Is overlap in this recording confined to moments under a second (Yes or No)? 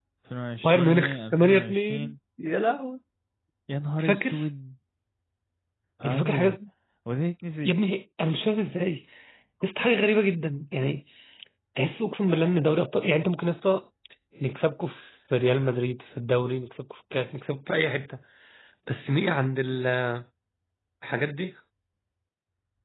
No